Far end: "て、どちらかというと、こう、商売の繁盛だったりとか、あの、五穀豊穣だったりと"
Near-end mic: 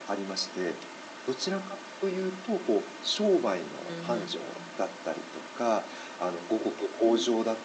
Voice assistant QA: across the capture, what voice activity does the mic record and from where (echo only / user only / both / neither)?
both